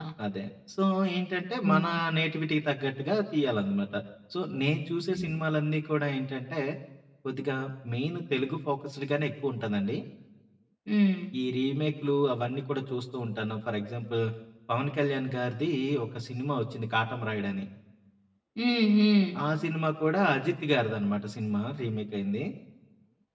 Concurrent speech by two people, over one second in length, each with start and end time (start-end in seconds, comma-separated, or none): none